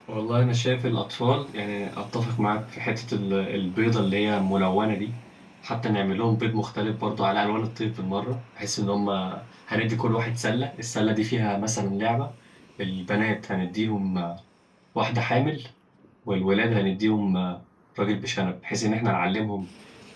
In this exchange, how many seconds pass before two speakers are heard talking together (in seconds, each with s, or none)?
none